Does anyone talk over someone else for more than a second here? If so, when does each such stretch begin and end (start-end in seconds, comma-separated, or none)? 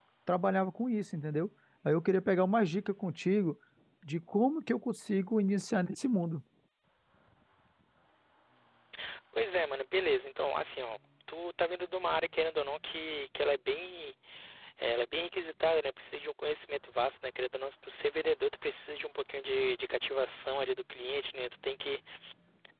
none